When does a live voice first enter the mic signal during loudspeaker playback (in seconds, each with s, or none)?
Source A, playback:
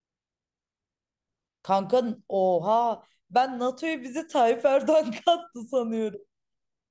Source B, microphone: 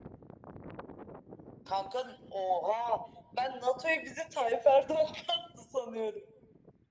none